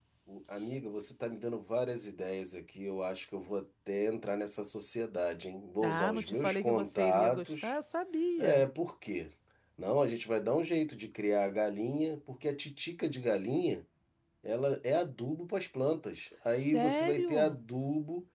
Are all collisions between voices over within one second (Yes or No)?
No